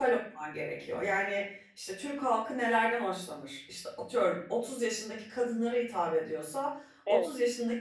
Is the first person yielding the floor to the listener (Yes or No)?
No